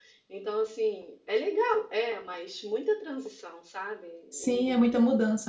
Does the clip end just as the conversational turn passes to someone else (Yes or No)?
Yes